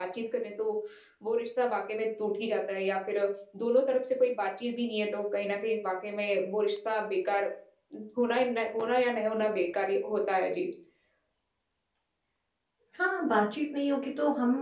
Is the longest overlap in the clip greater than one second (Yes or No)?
No